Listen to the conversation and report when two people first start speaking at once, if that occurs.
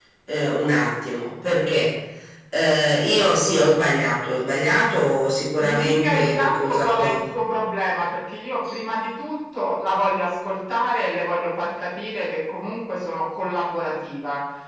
5.6 s

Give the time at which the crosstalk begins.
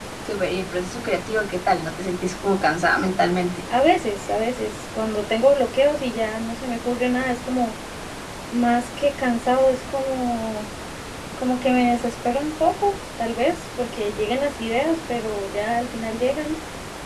none

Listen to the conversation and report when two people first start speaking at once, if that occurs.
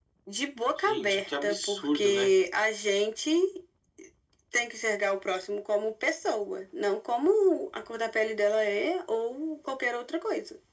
0.9 s

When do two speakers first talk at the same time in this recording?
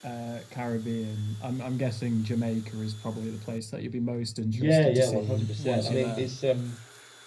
4.5 s

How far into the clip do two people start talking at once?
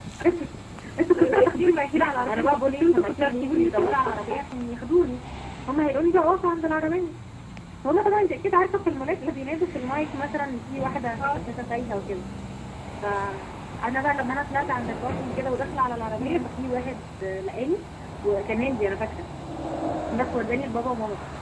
1.1 s

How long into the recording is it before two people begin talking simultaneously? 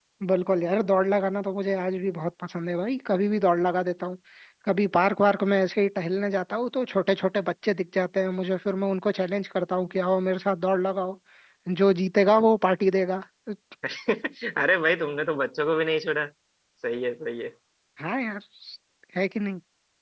none

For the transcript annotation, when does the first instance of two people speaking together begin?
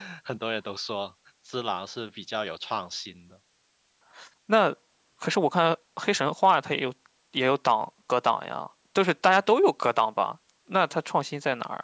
none

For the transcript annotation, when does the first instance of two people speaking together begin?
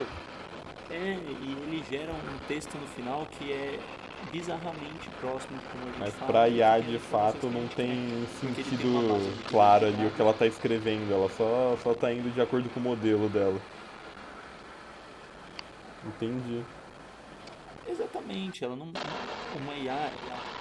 6.0 s

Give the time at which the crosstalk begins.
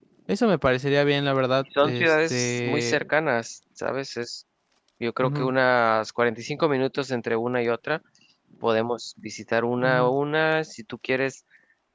1.8 s

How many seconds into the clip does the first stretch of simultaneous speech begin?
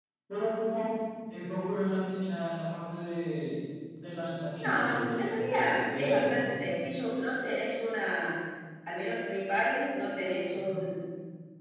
4.6 s

